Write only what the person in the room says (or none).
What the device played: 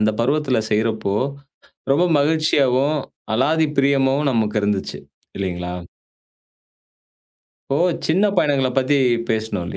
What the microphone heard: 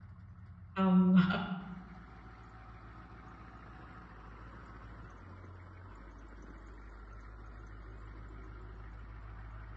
ஆமா,